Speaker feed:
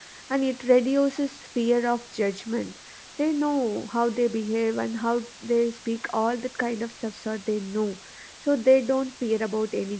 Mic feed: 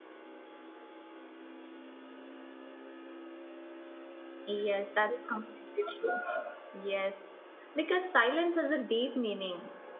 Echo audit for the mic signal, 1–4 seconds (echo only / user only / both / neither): neither